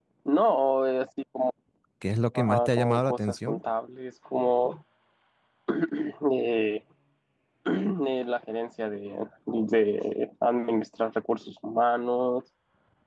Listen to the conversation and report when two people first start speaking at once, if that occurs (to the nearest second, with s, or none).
2 s